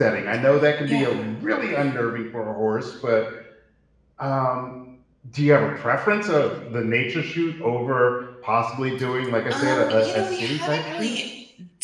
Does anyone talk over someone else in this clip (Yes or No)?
Yes